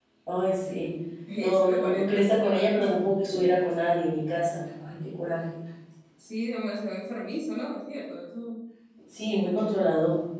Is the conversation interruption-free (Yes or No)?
No